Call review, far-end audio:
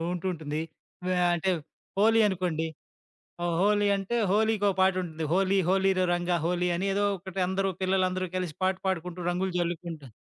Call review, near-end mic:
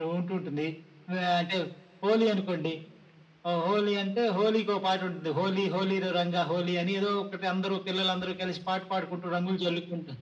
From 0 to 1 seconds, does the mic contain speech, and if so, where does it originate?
echo only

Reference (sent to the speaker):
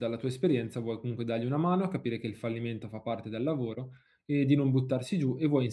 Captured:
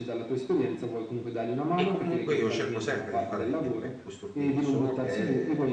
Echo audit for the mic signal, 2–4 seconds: both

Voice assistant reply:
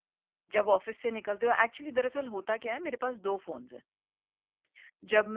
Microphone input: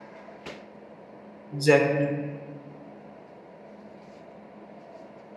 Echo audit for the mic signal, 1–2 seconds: user only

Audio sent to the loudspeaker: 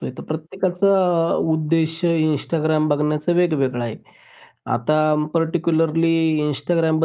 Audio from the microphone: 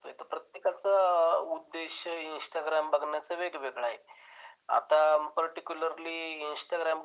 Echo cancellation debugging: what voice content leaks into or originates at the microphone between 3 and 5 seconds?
echo only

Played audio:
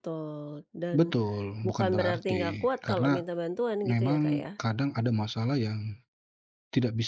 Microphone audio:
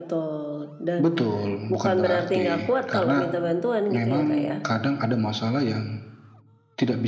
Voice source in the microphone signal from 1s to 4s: echo only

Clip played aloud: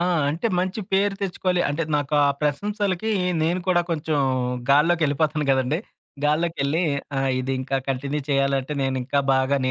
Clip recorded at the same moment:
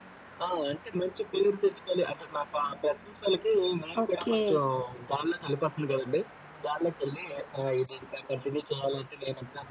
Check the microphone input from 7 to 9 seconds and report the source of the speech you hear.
echo only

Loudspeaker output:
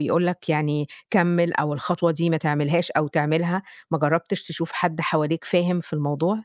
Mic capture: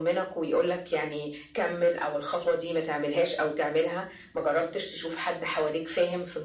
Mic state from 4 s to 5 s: echo only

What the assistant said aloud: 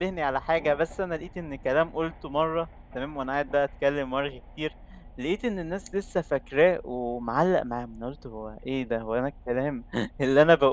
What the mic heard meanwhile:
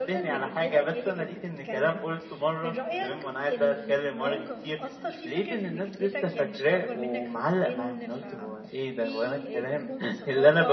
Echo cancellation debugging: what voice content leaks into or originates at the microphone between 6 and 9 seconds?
both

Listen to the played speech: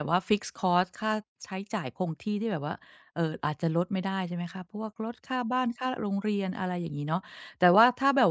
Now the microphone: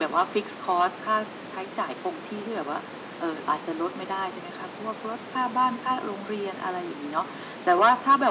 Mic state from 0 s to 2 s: echo only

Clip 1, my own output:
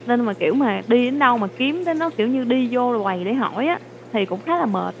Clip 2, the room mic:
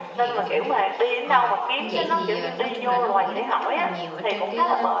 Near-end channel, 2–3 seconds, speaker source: both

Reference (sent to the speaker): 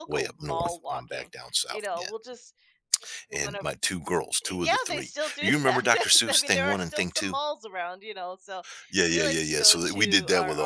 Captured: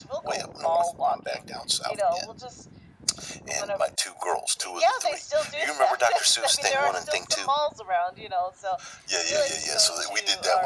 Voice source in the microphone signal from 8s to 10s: echo only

